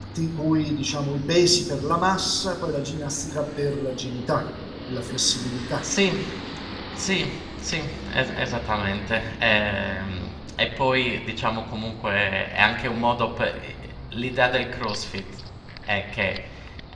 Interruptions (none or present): none